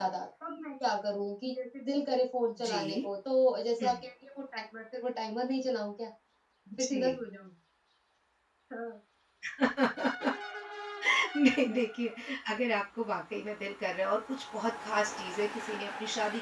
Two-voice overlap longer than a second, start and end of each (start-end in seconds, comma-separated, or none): none